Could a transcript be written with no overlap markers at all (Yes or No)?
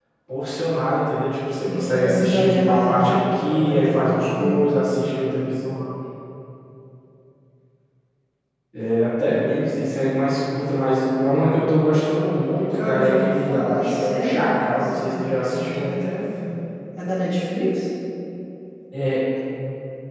No